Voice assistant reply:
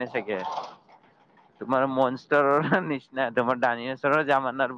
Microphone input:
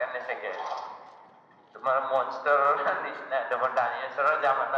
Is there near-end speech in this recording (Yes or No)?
No